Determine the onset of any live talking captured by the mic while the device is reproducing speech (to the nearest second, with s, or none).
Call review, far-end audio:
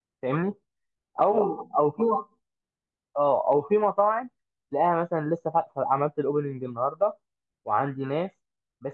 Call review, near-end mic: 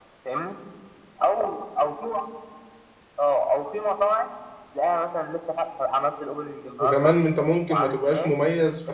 7 s